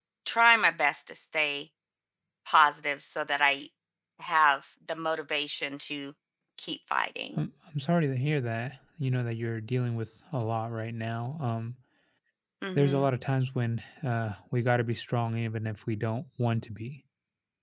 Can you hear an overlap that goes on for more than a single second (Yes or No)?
No